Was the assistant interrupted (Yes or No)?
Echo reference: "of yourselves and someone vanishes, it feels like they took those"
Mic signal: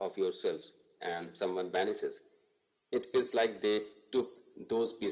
No